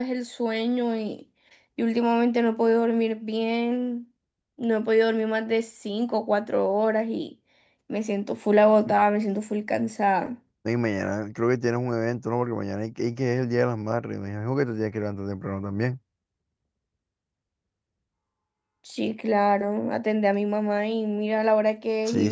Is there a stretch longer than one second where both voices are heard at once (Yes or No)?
No